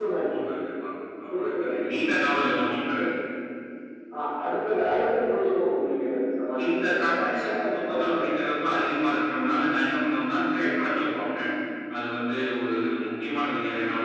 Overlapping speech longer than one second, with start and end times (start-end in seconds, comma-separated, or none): 6.6-8.2